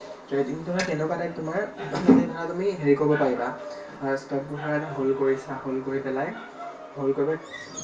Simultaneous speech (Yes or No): No